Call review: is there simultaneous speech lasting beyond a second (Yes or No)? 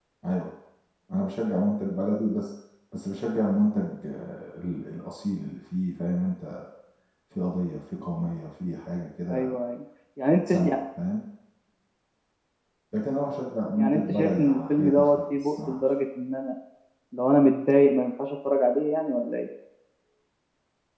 Yes